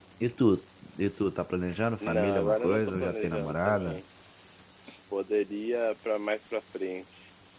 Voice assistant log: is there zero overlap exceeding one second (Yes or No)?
No